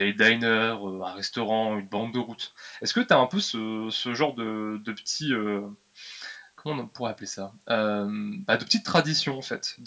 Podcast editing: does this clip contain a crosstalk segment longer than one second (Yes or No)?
No